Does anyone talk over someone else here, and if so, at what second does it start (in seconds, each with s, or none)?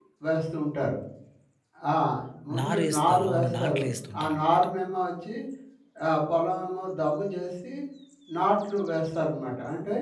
2.6 s